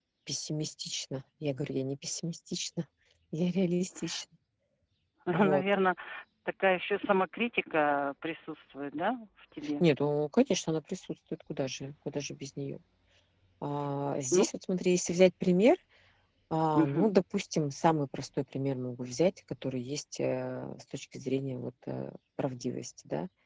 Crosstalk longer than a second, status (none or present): none